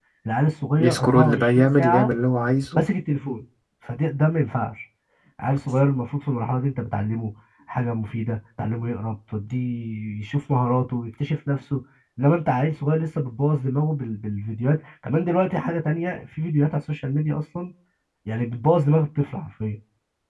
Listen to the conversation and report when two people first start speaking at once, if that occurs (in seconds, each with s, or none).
0.8 s